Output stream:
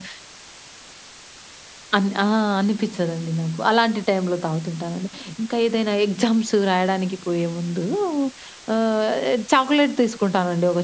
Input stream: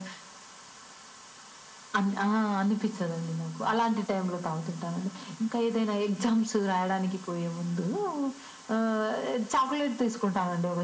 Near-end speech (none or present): none